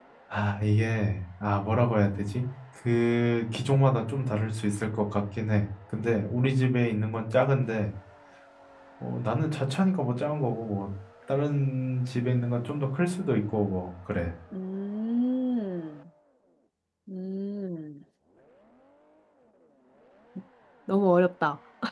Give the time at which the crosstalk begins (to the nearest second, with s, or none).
none